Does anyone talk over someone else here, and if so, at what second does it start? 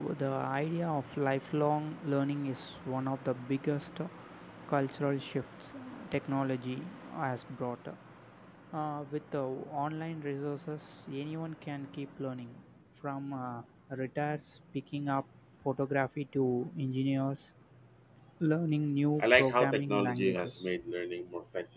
19.2 s

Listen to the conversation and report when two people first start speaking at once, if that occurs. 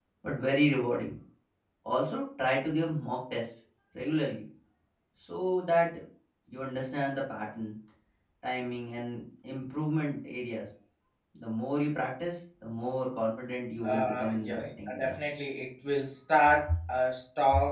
13.8 s

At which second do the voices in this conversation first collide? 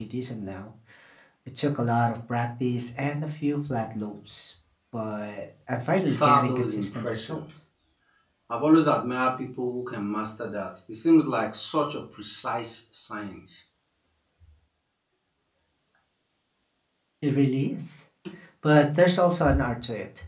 6.1 s

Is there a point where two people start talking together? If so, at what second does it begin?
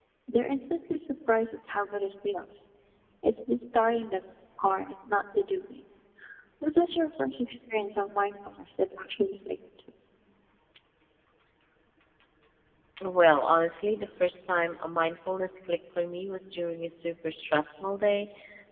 none

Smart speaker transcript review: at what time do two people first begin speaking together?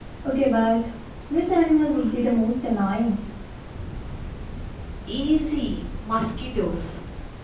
none

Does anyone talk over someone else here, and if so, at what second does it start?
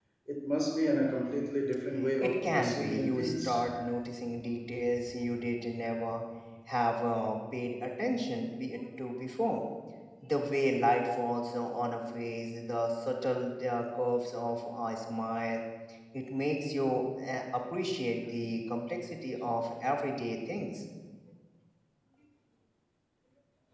2.2 s

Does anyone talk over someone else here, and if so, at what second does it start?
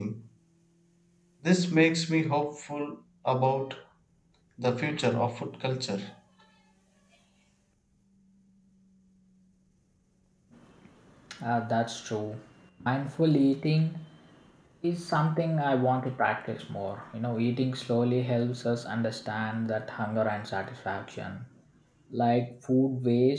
none

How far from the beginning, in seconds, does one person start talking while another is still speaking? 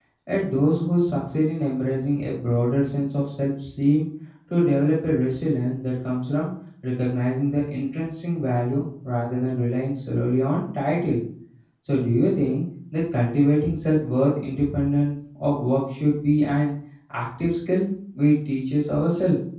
none

